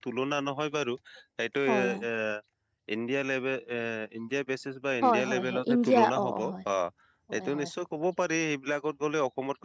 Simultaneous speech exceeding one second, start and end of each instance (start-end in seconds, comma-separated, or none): 5.0-6.4